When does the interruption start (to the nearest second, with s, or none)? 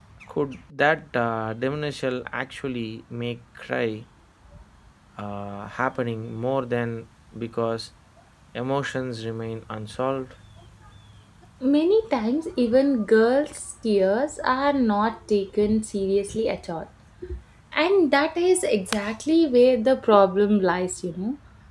none